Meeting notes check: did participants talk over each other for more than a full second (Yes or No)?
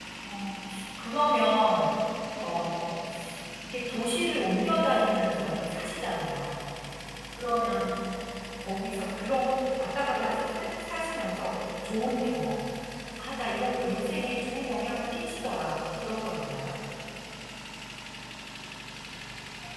No